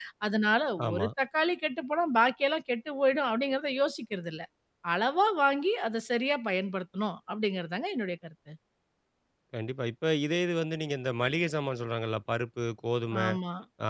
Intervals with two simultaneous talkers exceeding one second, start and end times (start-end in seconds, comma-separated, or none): none